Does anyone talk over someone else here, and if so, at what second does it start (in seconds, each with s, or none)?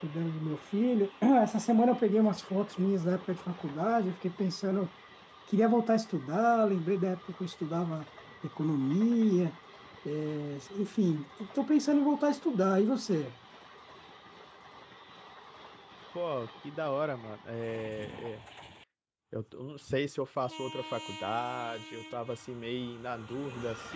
none